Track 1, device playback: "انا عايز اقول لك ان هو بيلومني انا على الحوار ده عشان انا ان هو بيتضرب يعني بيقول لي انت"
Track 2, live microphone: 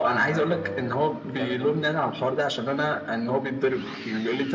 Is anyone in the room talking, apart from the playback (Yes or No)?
Yes